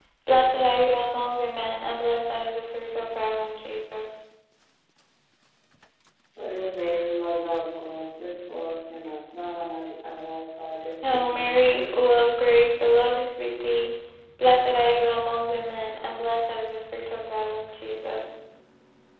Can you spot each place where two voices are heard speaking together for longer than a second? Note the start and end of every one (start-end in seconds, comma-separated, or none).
none